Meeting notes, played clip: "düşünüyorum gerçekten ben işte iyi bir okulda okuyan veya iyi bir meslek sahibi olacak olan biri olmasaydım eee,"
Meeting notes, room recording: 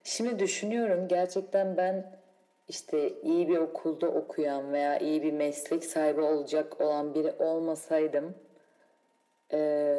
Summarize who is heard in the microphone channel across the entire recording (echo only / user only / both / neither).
echo only